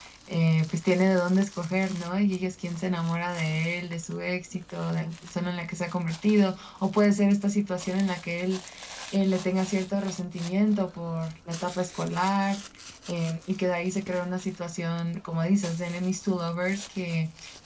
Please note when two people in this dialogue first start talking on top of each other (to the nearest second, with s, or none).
none